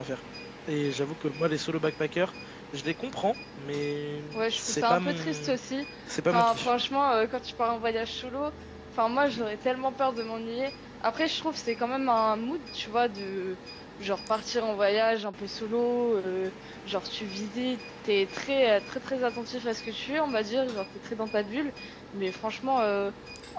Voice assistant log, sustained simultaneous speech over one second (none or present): present